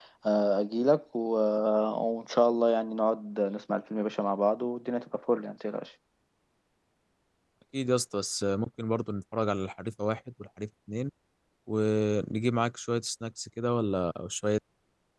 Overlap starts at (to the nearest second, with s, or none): none